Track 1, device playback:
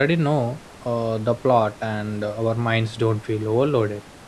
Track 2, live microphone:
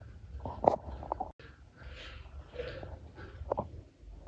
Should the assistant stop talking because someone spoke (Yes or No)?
No